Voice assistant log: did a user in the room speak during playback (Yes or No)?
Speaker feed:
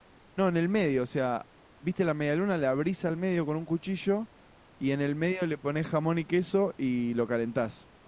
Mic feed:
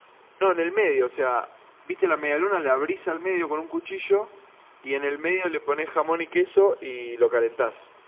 No